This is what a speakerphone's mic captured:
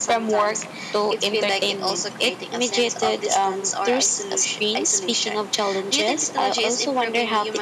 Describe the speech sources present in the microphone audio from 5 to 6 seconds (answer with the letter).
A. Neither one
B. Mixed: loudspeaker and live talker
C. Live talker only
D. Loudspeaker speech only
B